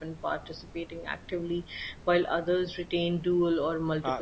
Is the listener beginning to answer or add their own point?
Yes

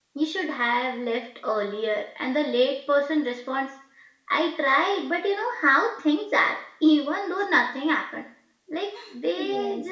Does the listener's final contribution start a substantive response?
No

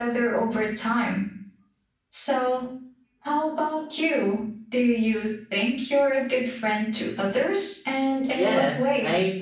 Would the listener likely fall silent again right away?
No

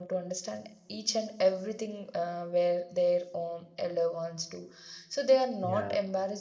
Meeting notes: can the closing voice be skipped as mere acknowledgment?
Yes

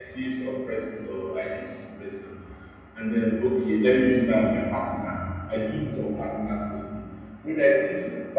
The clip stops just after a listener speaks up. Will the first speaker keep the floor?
Yes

